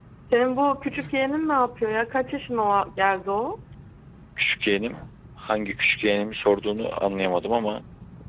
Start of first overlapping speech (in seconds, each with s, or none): none